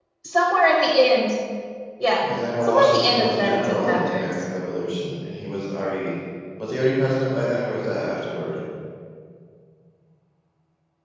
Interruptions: present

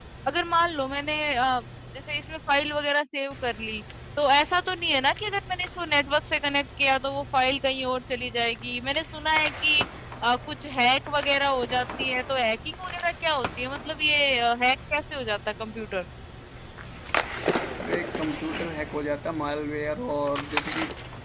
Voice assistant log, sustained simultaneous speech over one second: none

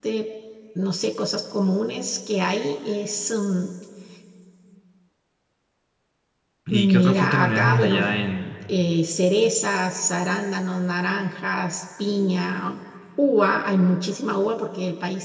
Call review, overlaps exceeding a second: present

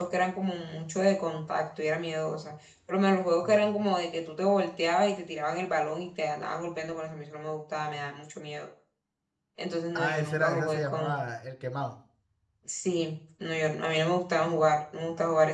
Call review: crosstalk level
present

